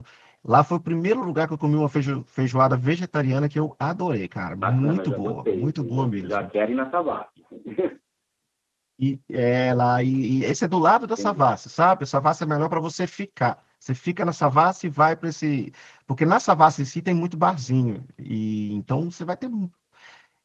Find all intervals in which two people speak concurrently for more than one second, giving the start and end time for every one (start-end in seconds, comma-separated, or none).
4.6-6.5